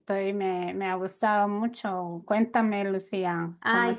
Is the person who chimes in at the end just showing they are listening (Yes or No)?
No